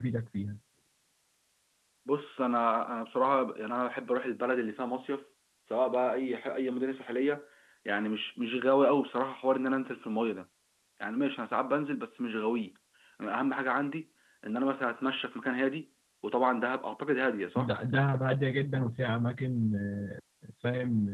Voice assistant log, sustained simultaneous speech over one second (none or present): none